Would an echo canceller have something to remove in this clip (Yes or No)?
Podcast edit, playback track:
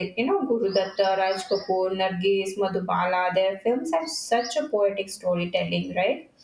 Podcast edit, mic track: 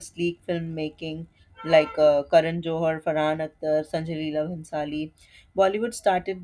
No